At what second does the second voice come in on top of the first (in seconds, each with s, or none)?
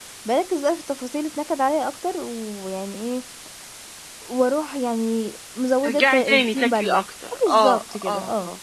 5.8 s